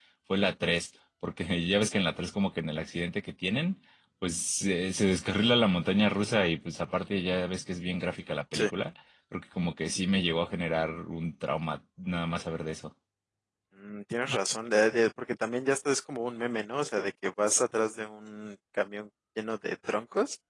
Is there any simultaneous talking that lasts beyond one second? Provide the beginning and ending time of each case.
none

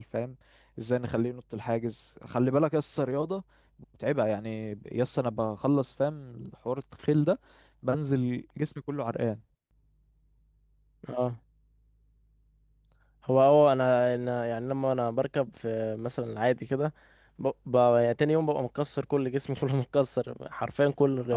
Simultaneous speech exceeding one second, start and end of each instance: none

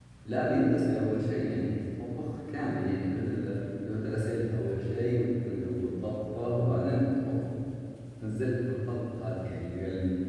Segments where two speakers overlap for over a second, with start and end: none

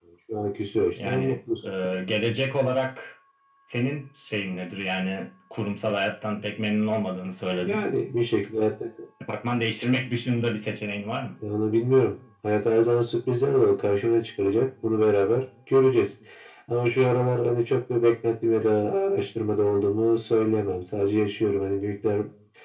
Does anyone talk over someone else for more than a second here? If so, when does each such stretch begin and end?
none

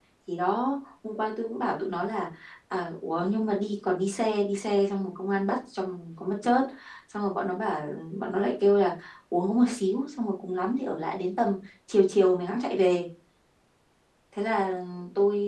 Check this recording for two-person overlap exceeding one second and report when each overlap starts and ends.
none

